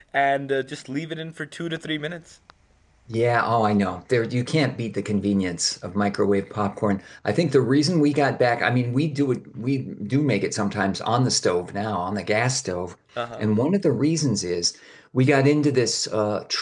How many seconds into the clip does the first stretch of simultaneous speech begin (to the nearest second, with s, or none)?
none